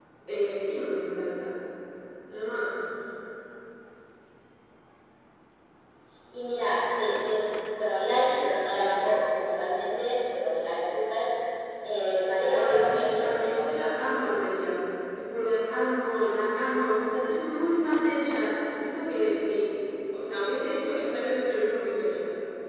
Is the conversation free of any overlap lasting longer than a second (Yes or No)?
No